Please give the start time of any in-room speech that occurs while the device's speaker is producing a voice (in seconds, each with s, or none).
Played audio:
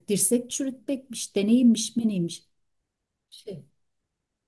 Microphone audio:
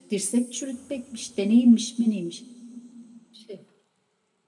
none